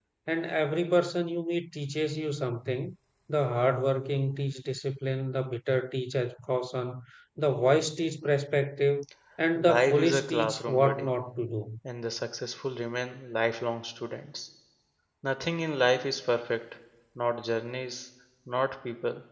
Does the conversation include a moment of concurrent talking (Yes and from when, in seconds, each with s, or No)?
Yes, from 9.5 s